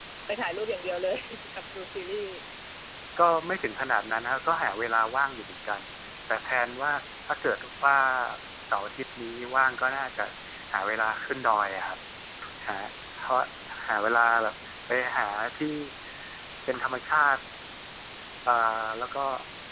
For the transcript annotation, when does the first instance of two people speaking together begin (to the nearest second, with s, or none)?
none